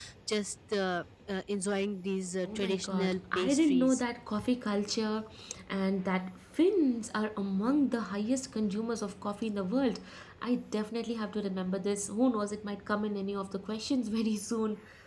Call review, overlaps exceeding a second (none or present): present